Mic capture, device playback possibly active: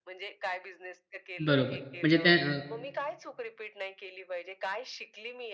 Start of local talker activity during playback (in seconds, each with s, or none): 1.4 s